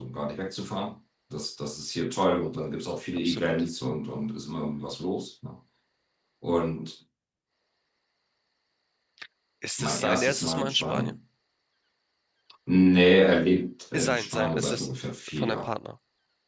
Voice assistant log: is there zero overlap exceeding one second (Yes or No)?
No